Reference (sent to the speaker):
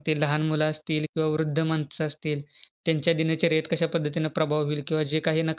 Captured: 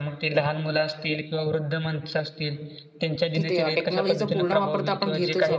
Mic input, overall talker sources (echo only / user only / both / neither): both